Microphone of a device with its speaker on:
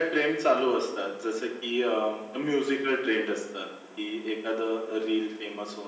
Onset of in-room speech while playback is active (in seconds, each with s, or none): none